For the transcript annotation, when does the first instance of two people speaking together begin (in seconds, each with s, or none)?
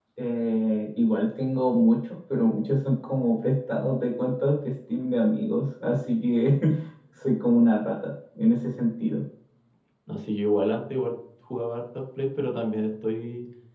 none